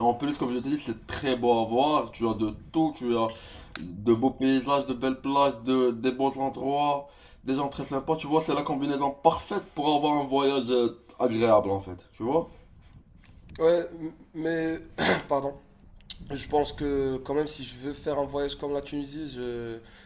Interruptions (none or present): none